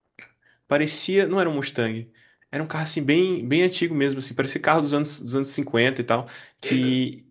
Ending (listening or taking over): listening